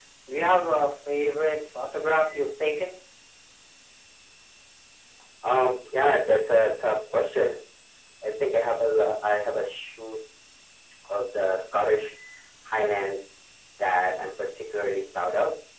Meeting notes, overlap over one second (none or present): none